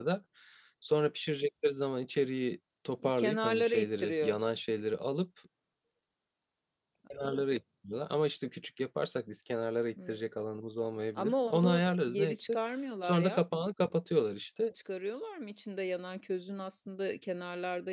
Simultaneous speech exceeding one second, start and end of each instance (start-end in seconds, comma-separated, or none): 3.2-4.4, 11.2-12.6